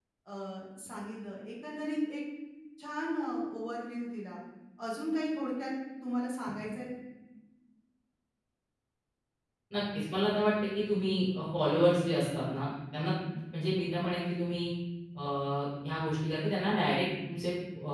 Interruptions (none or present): none